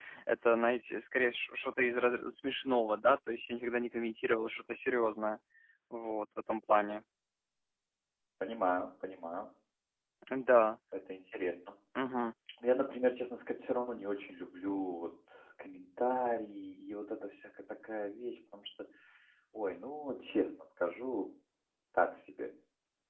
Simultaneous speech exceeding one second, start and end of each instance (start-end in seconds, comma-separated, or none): none